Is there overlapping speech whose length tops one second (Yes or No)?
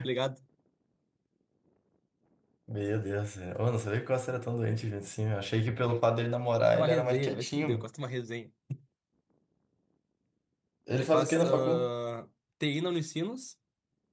Yes